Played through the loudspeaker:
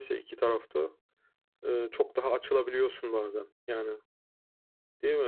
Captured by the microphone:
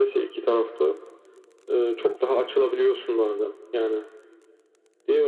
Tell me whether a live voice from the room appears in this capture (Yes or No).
No